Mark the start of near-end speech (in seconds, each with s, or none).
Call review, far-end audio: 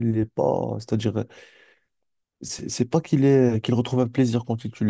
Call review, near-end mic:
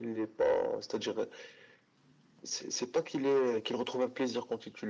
none